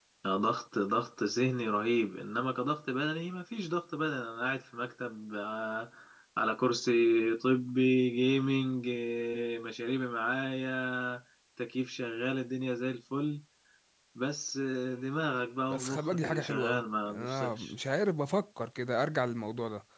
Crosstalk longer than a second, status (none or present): present